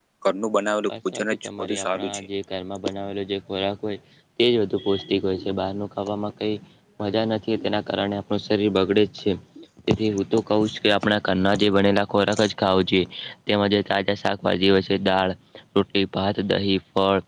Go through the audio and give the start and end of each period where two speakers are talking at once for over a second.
0.9-2.3

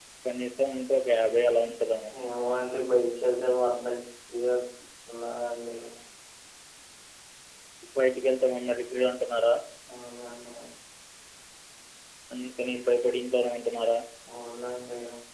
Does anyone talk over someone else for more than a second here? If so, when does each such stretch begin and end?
none

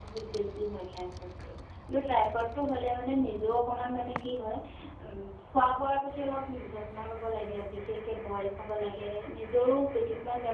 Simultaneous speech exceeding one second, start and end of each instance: none

